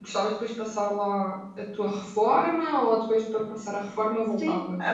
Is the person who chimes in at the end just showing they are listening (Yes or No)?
No